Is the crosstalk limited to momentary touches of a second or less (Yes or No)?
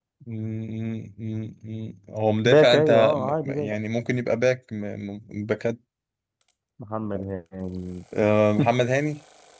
No